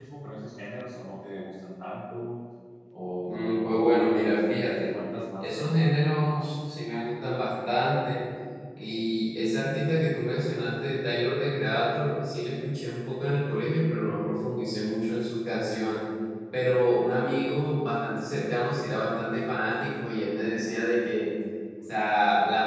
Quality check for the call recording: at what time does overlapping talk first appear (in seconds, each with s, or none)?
3.3 s